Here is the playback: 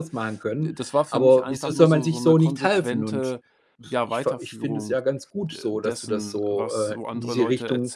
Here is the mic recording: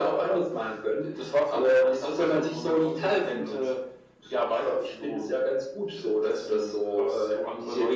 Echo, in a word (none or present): present